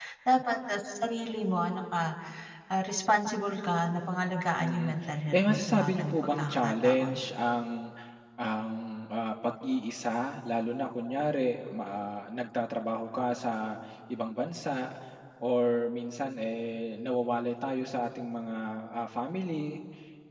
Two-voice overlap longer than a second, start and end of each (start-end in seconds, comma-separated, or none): 5.3-7.2